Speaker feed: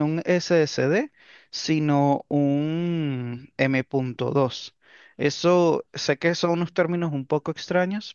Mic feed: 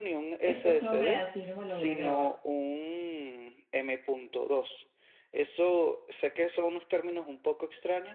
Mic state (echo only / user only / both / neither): both